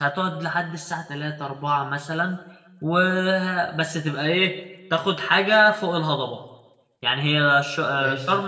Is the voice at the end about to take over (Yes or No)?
No